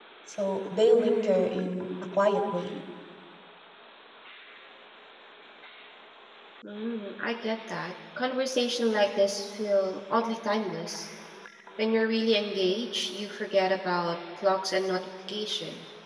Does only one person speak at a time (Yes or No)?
Yes